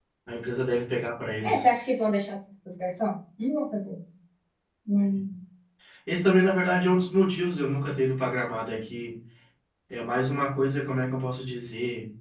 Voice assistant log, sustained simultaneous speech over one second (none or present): none